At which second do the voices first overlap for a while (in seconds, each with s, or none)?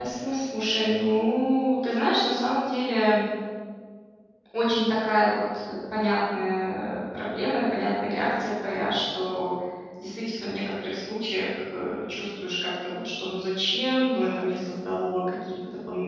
none